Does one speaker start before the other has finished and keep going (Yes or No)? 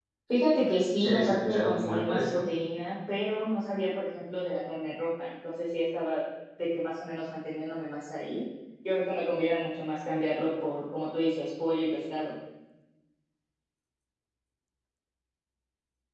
Yes